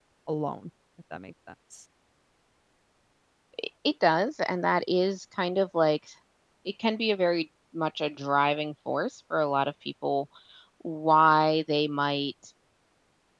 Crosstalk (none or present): none